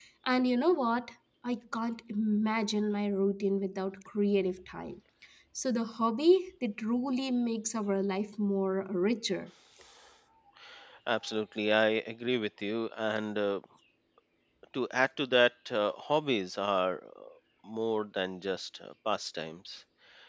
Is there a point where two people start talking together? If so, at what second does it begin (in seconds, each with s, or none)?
none